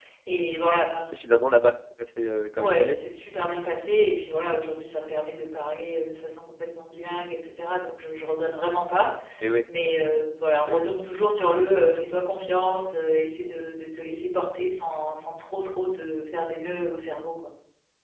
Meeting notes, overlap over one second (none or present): none